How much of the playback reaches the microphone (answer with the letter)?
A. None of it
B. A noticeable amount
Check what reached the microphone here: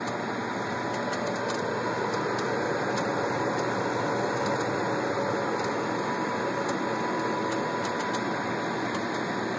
A